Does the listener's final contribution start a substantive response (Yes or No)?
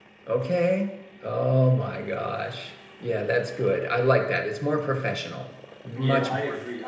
Yes